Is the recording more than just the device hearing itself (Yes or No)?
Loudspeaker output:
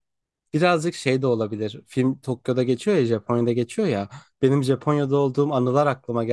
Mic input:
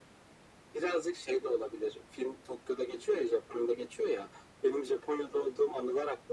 No